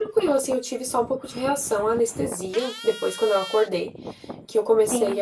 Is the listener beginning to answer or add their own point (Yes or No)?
No